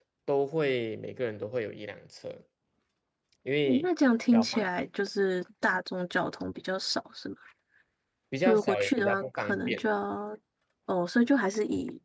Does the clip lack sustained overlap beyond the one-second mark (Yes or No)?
No